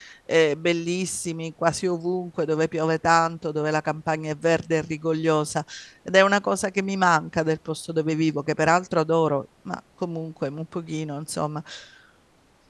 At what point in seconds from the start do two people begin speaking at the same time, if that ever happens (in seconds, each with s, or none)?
none